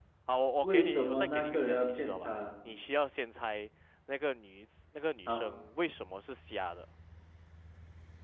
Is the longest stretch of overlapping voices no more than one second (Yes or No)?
No